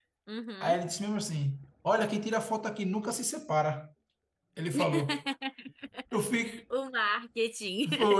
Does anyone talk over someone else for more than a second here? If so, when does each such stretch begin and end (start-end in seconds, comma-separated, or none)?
none